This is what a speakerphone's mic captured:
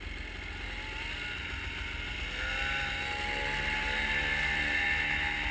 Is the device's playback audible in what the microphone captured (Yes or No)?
No